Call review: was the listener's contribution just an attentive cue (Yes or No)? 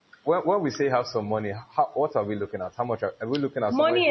No